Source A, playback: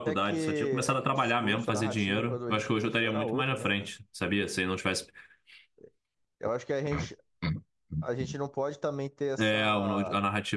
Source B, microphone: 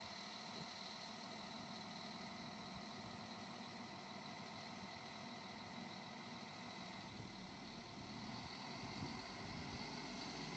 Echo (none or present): none